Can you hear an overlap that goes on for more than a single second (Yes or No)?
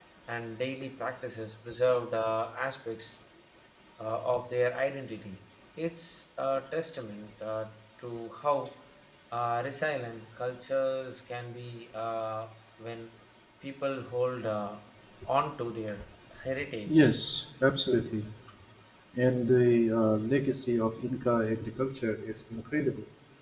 No